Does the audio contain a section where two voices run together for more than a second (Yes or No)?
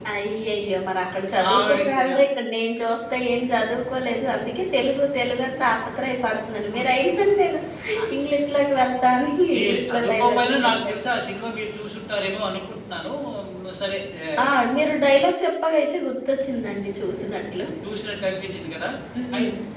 Yes